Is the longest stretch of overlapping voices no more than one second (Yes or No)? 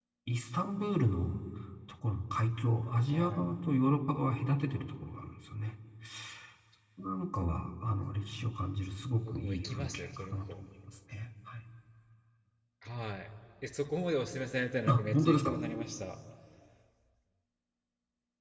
No